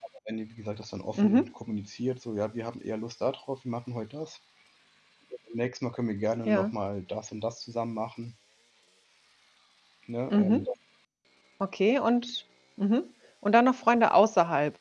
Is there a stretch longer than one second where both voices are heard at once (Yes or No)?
No